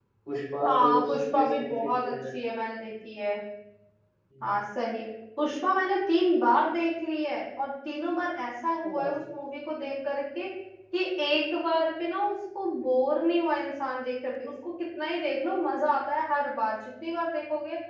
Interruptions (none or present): present